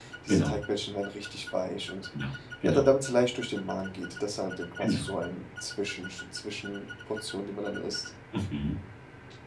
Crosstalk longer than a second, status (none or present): none